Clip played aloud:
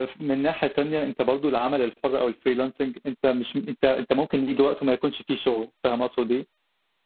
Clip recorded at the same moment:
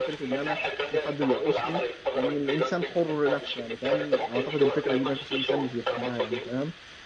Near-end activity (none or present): present